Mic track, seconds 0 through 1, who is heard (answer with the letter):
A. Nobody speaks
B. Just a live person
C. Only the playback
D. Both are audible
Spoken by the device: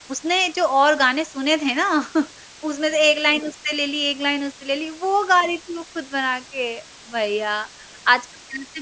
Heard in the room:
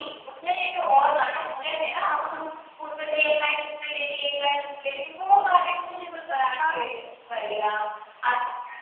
C